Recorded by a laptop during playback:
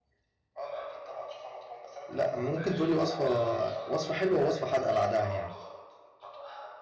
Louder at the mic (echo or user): user